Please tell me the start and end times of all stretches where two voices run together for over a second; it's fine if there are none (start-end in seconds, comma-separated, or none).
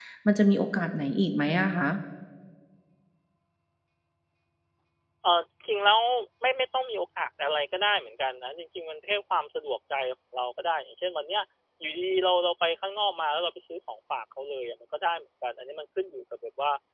none